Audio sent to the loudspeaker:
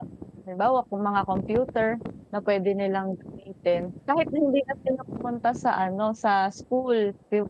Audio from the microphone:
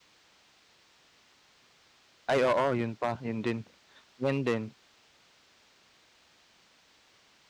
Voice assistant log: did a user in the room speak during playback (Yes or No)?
Yes